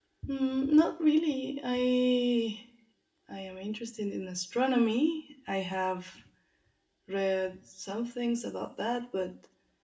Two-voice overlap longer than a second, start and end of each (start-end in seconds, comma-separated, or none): none